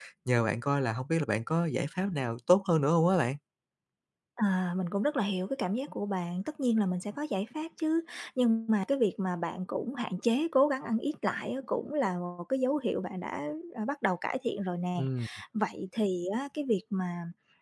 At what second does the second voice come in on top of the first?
none

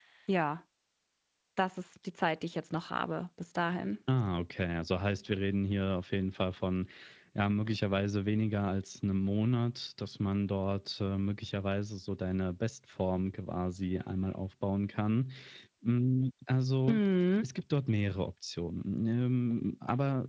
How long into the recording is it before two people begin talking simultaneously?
none

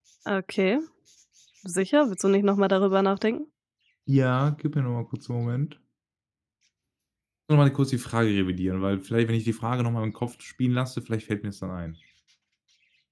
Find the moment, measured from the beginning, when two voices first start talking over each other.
none

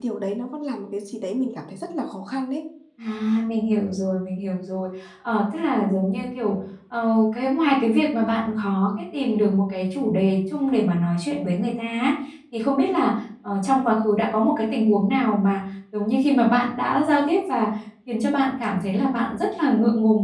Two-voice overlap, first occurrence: none

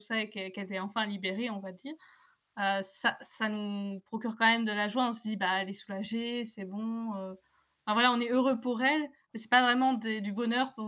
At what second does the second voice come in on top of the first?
none

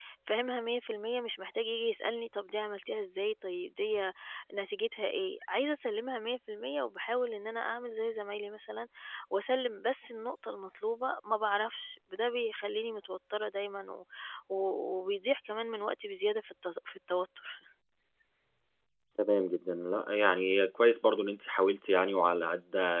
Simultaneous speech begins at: none

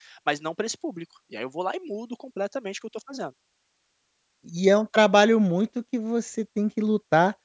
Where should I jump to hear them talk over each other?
none

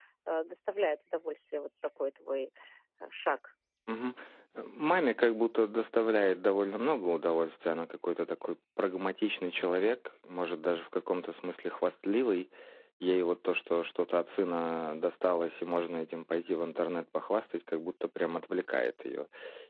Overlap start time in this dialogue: none

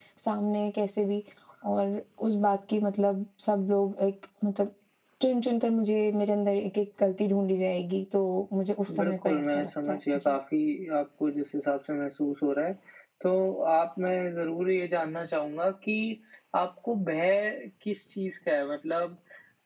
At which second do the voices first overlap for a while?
8.9 s

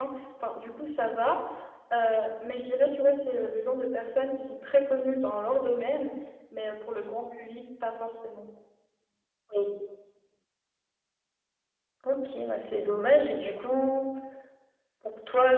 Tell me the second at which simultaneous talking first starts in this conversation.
none

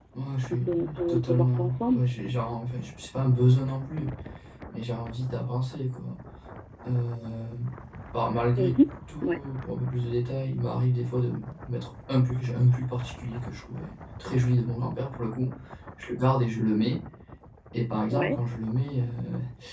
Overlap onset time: 0.7 s

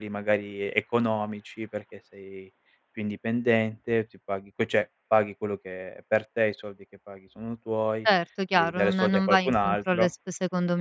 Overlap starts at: 8.6 s

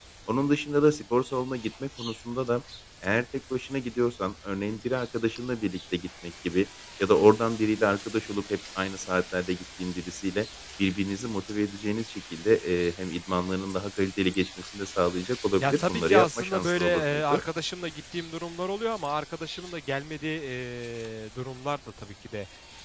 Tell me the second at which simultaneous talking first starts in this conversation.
15.6 s

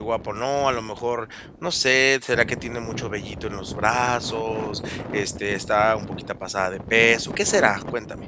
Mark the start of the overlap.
none

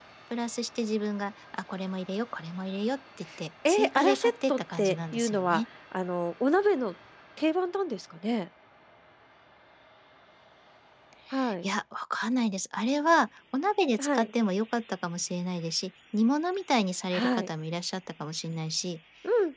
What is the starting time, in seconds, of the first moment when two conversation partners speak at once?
3.7 s

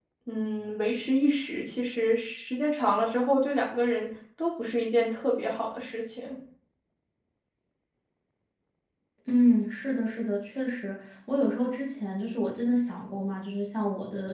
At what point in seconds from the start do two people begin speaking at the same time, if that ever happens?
none

